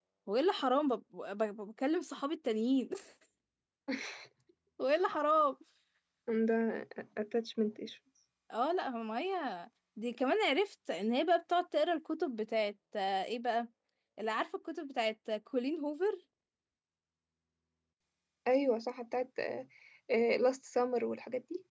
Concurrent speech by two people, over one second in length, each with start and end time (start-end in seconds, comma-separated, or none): none